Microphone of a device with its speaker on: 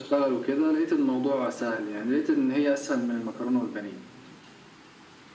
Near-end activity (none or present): none